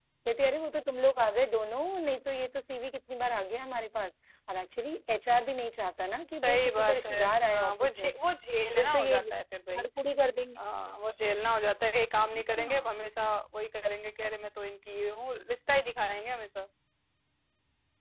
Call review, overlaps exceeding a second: present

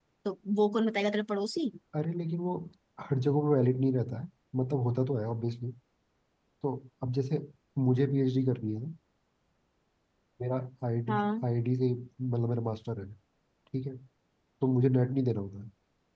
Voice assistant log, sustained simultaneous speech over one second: none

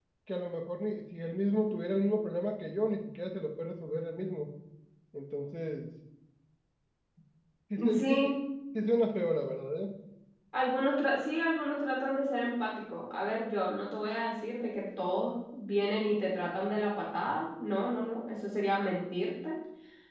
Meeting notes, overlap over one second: none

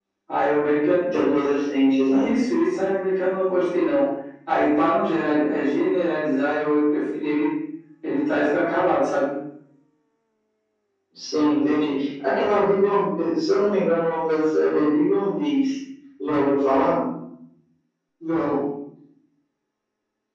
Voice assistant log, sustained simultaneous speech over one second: none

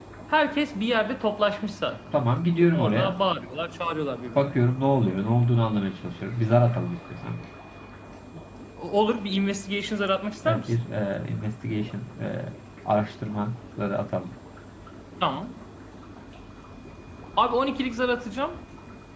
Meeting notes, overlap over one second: none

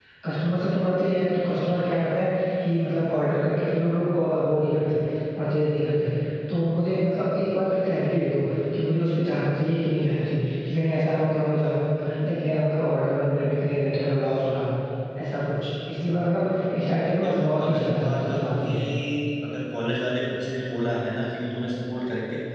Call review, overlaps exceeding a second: present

